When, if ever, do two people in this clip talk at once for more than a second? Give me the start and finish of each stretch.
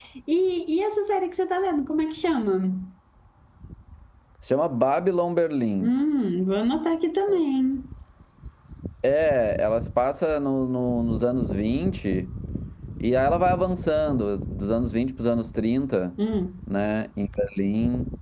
none

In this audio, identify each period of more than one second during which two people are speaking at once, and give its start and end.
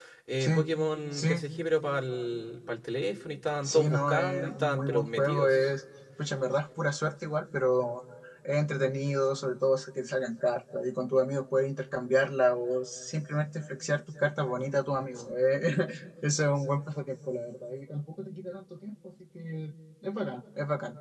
3.6-5.7

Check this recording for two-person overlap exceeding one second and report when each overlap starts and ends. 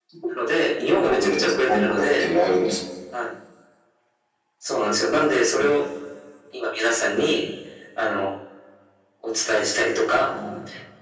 1.0-2.3

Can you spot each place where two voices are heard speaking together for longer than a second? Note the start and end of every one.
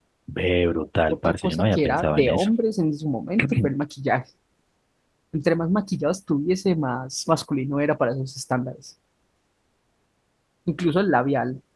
1.1-2.5

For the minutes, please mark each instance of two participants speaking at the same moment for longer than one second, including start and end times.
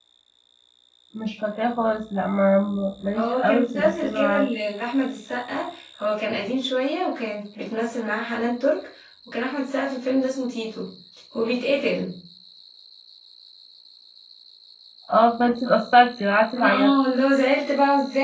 3.2-4.5

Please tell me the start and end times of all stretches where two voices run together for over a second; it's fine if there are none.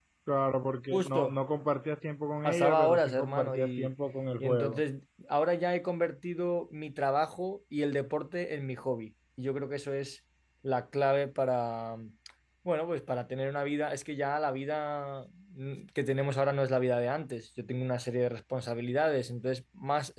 2.5-3.9

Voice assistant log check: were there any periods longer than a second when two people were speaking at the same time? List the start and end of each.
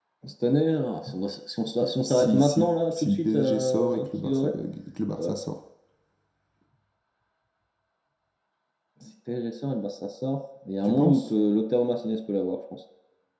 2.0-4.5

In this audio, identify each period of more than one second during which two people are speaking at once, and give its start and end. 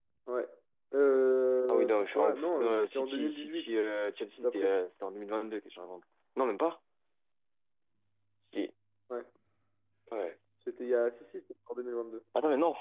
1.7-3.7

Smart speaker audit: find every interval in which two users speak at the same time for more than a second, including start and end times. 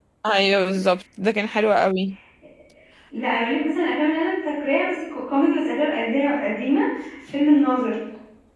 none

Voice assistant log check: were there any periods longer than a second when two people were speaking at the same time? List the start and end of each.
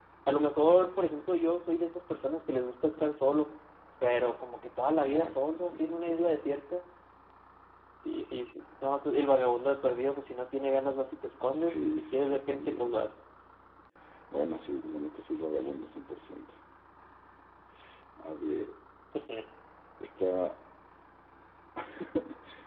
5.0-6.3, 11.6-13.0

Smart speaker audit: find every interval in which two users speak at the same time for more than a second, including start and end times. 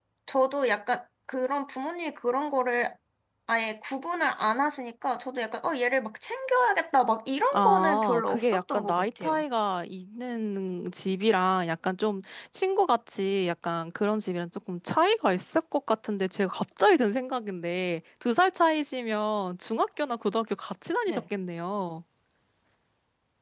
7.5-9.4

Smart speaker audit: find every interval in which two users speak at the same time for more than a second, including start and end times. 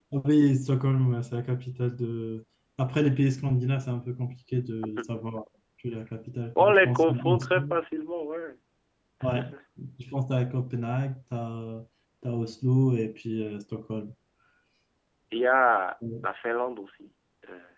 6.5-7.8

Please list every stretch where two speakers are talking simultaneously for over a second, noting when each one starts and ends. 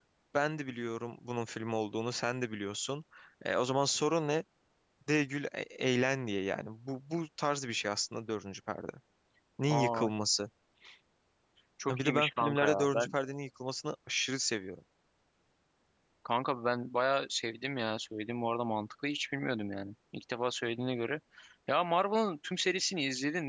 11.9-13.1

